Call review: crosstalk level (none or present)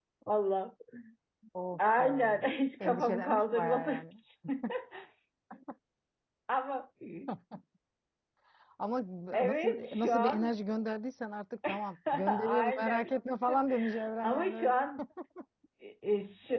present